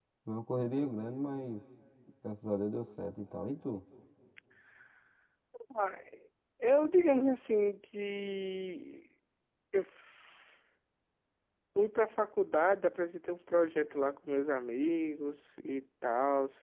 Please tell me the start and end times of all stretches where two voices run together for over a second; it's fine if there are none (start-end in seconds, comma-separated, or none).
none